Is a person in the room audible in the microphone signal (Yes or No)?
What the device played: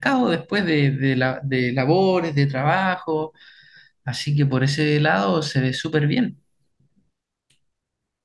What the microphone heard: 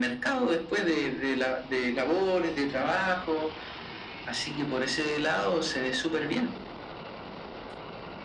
No